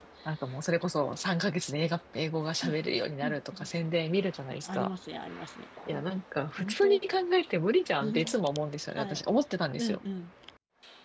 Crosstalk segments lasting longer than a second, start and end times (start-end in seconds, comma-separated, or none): none